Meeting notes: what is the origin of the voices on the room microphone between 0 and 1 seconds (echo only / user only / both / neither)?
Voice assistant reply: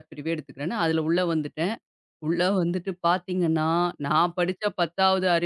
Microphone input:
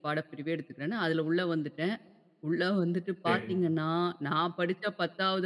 echo only